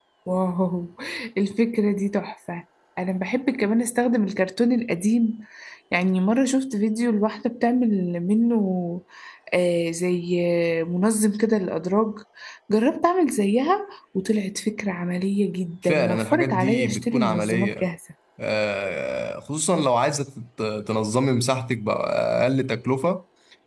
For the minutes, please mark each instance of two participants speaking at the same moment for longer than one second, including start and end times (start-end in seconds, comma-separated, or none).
15.8-17.8